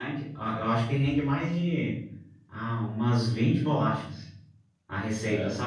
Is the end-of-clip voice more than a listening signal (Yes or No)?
No